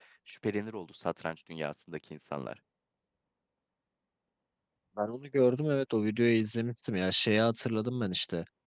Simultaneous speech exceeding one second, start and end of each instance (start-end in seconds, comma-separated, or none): none